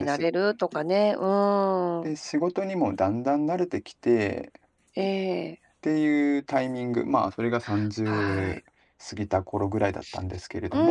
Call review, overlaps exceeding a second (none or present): none